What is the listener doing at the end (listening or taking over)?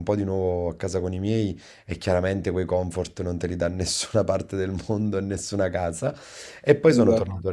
listening